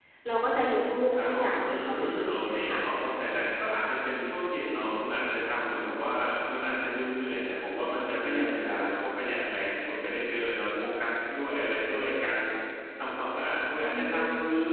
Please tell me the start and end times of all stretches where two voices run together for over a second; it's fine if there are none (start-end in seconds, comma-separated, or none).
1.1-2.8